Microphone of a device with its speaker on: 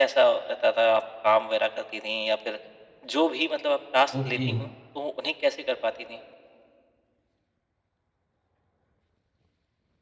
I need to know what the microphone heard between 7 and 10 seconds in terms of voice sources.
neither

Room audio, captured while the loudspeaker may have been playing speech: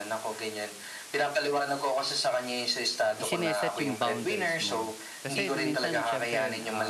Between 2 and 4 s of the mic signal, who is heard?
both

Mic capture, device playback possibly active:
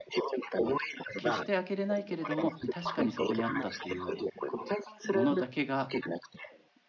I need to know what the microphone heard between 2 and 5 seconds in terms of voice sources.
both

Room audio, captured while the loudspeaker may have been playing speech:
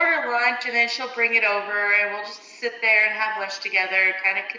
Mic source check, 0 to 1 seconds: echo only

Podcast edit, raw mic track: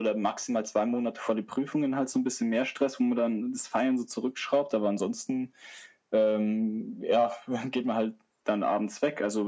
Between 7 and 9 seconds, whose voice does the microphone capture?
echo only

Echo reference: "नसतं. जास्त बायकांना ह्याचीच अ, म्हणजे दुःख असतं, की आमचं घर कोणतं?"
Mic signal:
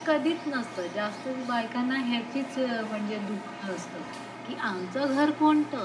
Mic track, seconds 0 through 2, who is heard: echo only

